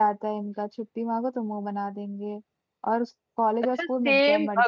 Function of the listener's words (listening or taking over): taking over